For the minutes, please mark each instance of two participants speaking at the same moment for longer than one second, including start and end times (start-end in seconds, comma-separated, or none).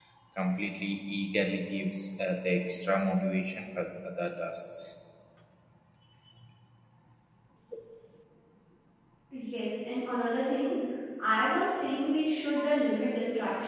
none